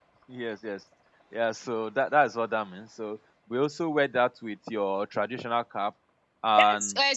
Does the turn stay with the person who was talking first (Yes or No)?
No